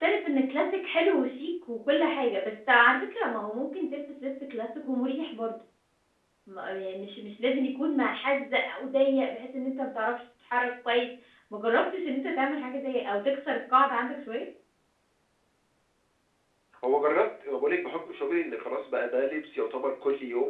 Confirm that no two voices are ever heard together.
Yes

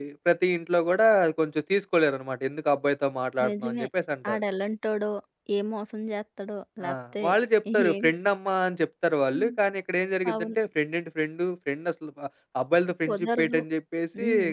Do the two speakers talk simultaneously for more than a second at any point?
No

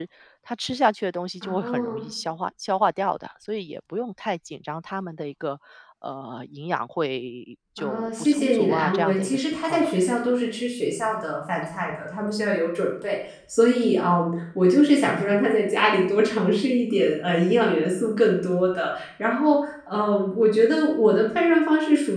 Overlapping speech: Yes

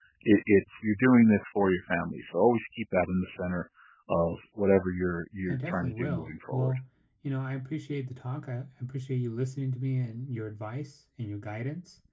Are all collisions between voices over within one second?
No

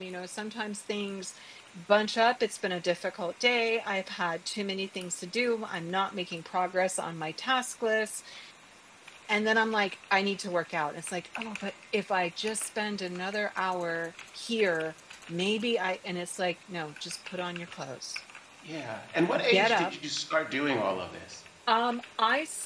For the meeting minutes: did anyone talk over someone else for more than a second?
No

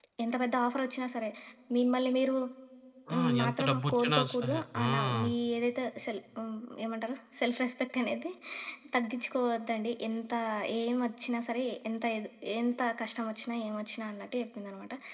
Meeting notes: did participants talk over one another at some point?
Yes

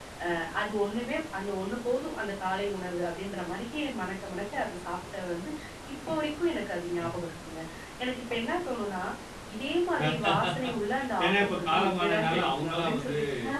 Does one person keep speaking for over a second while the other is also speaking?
Yes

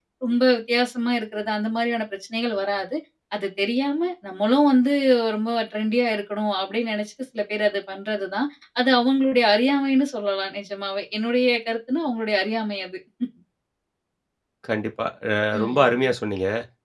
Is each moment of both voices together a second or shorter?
Yes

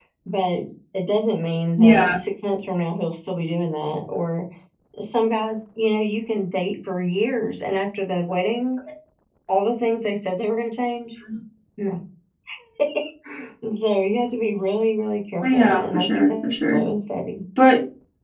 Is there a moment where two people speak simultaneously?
Yes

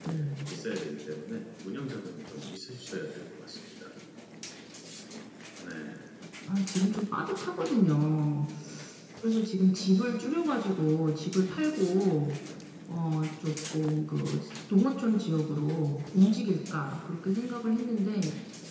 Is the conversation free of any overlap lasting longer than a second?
Yes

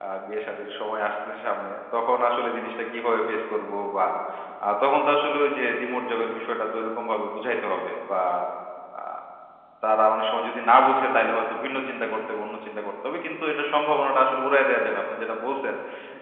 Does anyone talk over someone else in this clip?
No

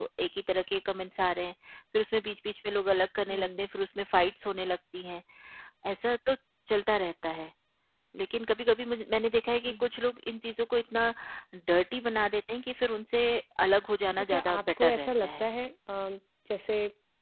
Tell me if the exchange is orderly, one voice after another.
No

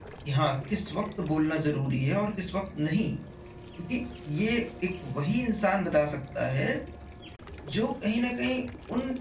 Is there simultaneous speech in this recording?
No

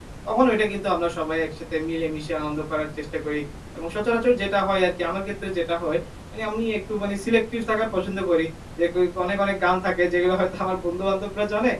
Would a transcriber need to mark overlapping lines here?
No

